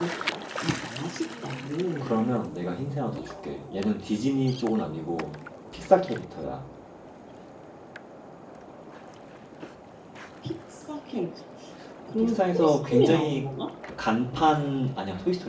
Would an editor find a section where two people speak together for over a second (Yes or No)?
Yes